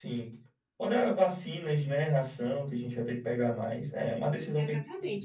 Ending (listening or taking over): taking over